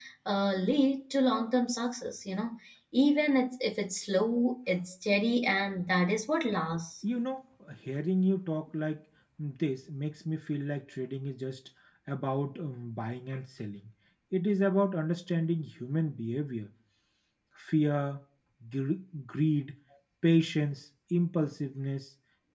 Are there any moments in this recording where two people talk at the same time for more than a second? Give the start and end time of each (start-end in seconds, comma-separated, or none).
none